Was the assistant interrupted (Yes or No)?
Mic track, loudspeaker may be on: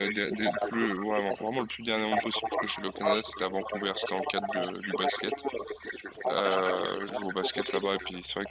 Yes